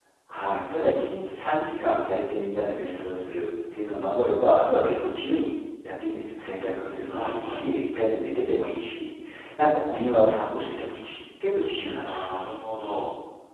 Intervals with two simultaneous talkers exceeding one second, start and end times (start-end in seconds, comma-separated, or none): none